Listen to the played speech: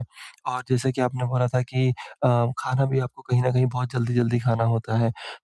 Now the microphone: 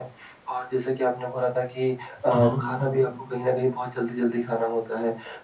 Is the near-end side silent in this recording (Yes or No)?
No